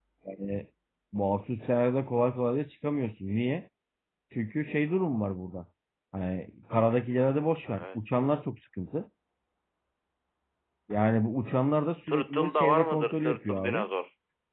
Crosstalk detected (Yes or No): Yes